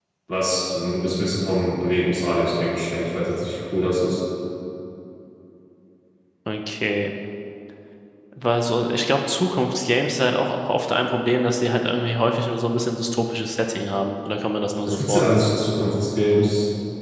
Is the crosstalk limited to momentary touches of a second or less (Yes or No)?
Yes